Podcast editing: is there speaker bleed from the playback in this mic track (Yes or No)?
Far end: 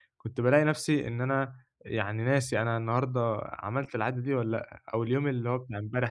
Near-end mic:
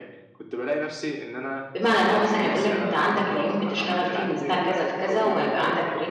Yes